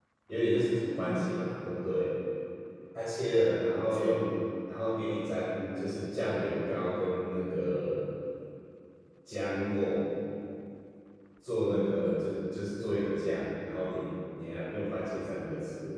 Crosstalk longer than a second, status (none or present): none